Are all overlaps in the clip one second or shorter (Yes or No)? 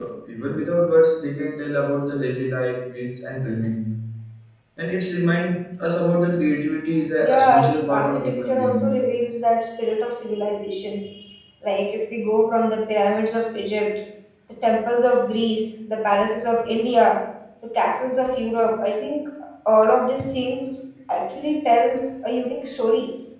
No